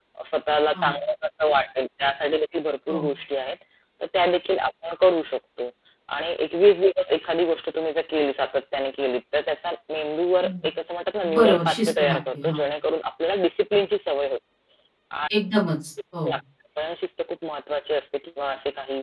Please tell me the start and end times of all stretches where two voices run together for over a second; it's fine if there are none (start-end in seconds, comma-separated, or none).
11.4-12.6